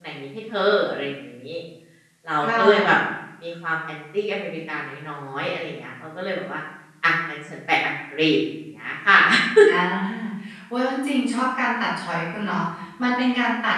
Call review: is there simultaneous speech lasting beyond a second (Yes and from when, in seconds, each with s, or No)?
No